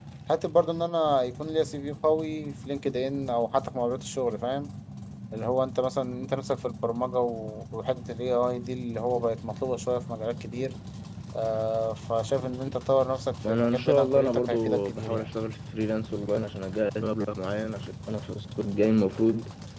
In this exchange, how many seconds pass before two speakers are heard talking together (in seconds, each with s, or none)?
13.4 s